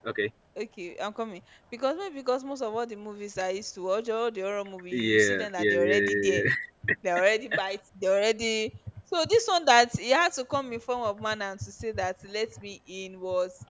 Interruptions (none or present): present